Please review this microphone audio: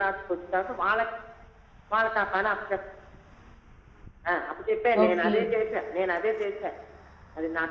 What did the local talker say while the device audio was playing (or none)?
ఓకే.